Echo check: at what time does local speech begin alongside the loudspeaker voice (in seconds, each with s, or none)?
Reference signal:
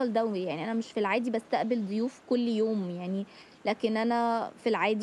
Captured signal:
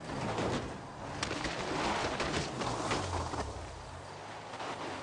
none